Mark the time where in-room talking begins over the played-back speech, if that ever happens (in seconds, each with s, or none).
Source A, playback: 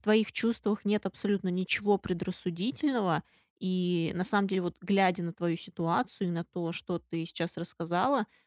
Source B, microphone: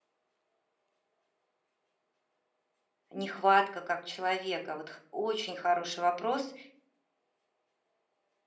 3.1 s